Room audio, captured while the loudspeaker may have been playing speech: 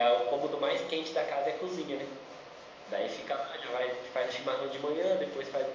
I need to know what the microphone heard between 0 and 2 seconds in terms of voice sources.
echo only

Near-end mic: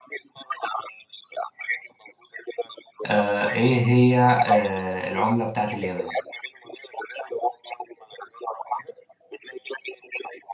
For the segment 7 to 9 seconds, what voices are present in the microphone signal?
echo only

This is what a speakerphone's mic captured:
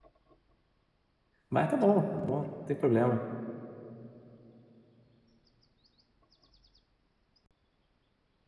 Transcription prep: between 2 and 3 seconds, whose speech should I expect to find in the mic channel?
user only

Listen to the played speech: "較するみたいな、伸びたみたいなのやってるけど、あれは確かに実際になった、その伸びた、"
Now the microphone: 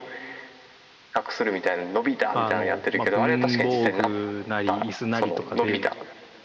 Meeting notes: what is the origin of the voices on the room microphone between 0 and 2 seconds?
echo only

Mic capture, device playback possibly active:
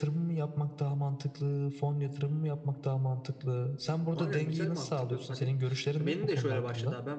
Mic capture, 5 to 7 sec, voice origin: both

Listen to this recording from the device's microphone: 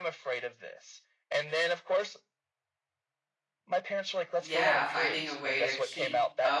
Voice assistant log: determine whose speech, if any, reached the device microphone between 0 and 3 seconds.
echo only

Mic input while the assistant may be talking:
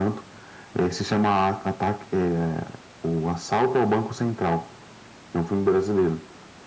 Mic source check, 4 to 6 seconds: echo only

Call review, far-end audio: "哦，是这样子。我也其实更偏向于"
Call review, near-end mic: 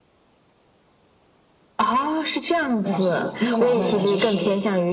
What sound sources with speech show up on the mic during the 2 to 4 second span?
both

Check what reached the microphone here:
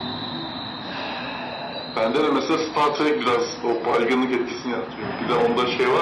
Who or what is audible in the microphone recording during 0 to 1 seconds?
neither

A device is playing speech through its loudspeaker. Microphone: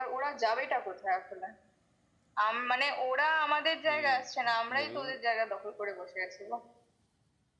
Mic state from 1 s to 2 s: echo only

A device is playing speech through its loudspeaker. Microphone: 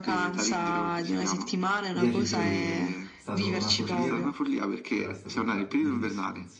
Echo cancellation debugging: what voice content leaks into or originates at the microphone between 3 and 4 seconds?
both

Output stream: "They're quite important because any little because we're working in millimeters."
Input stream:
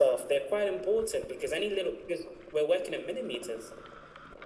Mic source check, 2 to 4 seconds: echo only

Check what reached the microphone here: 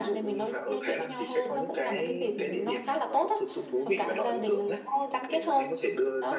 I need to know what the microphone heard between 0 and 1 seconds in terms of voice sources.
echo only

